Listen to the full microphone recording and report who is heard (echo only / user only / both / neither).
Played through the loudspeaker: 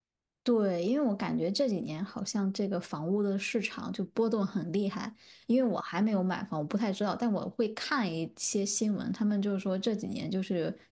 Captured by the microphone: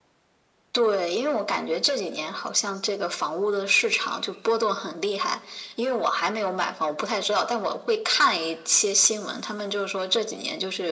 echo only